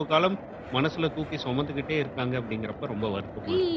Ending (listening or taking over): taking over